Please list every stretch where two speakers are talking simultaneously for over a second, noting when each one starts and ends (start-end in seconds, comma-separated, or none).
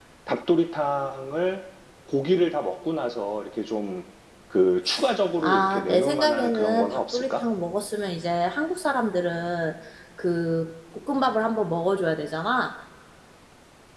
5.4-7.4